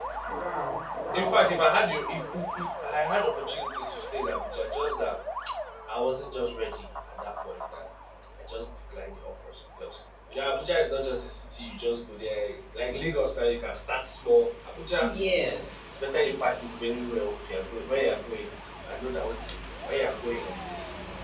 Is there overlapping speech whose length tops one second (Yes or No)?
No